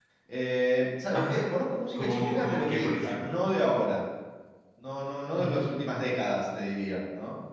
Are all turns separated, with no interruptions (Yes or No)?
No